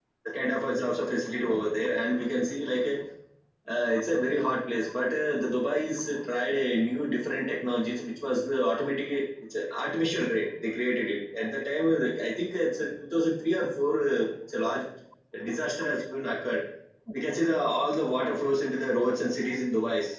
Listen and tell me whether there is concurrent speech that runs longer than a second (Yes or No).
No